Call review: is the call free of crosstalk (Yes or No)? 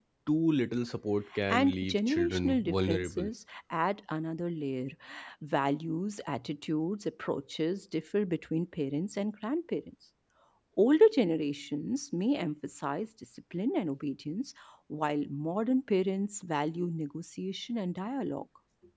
No